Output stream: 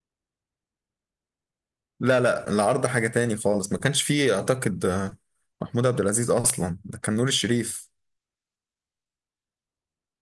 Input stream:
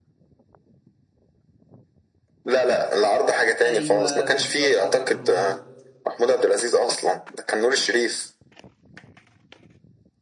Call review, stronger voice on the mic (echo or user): echo